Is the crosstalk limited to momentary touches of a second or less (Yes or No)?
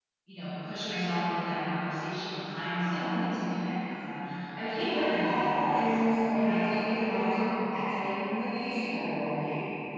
No